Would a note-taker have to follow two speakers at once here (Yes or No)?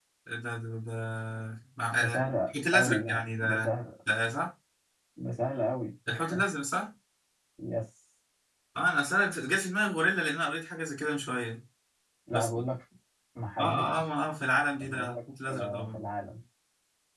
Yes